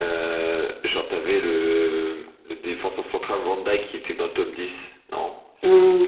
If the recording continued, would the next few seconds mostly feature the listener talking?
Yes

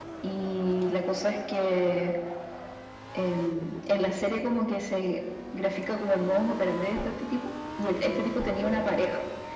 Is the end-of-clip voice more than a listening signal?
No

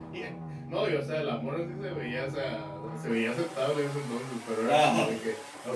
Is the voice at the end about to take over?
No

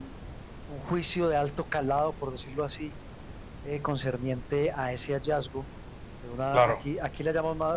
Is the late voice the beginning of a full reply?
No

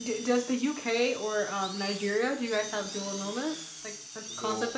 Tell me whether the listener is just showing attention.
No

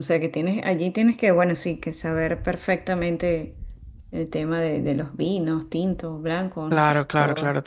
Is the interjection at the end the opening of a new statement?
Yes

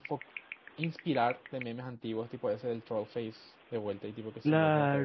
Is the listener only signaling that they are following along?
No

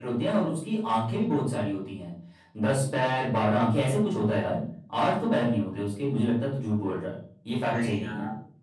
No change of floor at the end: No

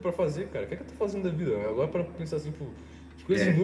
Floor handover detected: No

